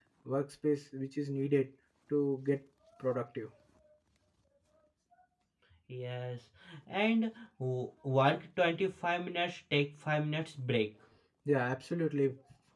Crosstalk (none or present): none